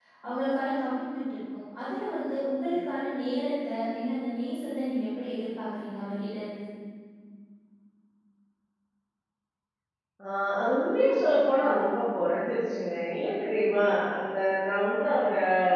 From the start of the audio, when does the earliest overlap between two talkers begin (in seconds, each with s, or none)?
none